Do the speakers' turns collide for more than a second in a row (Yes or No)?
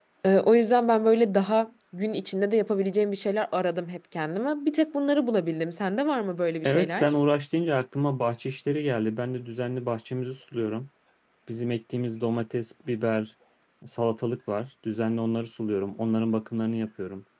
No